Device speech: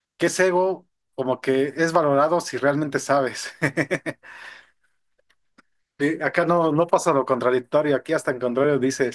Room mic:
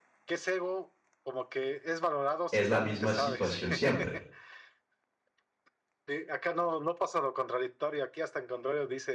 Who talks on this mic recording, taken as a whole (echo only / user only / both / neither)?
both